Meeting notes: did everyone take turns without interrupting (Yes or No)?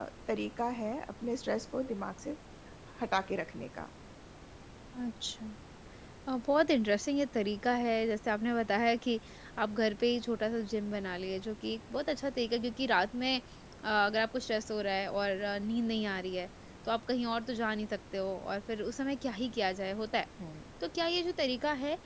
Yes